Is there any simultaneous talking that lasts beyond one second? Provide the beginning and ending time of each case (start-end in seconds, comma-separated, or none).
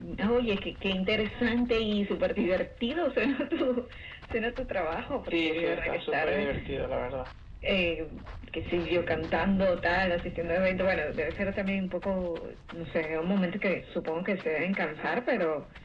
5.3-6.5